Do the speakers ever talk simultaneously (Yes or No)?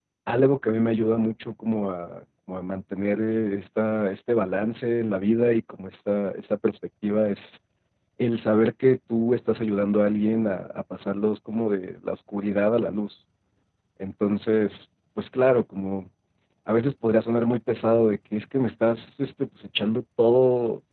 No